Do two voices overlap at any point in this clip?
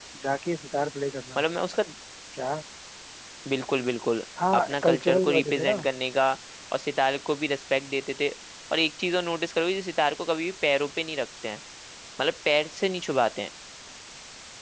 Yes, from 4.4 s

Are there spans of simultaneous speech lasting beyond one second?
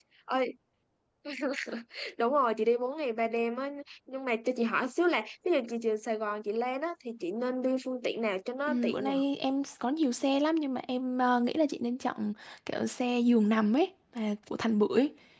No

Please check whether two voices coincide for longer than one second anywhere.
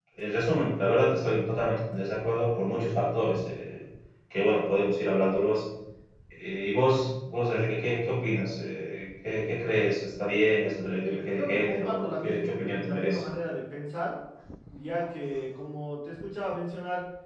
Yes, from 11.1 s

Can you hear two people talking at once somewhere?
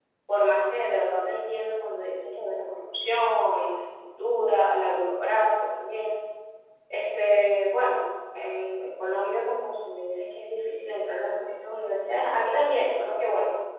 No

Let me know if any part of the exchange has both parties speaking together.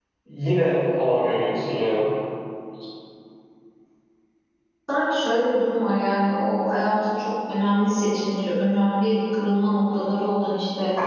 No

